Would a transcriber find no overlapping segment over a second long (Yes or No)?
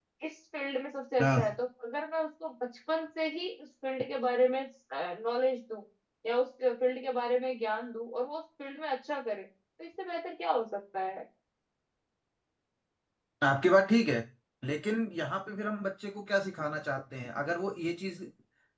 Yes